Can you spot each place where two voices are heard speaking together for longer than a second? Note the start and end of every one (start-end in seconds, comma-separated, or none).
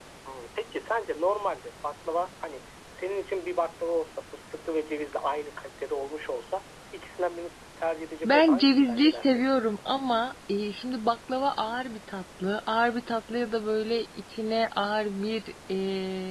8.2-9.4